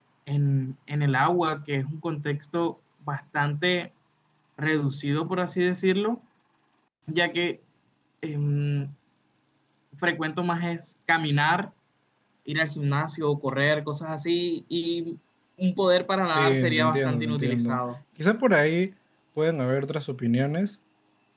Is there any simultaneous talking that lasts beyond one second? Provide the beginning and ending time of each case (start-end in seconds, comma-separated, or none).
16.4-17.8